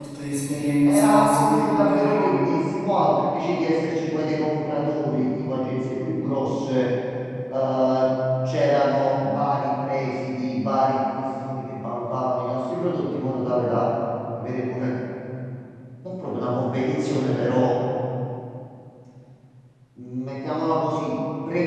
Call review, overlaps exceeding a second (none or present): present